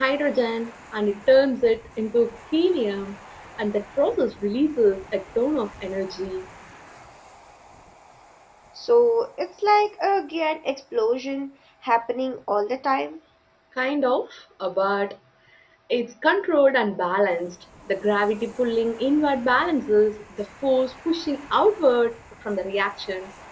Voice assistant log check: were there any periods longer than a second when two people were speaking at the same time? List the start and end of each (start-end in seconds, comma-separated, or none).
none